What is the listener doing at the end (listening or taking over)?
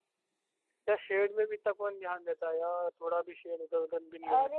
taking over